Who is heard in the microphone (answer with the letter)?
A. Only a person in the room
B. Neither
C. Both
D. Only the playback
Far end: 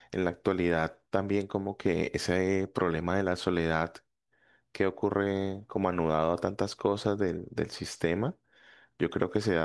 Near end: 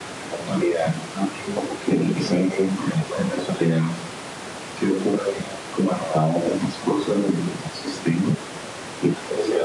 D